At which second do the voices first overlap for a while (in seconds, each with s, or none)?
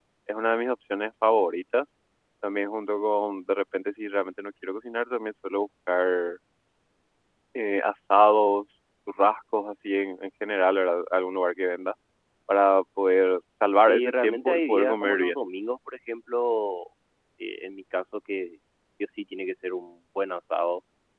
13.9 s